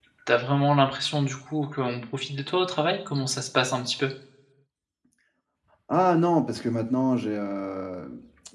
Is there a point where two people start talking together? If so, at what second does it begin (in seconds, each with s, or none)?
none